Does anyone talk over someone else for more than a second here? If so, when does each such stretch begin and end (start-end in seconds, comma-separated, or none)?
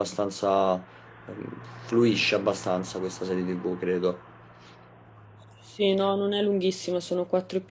none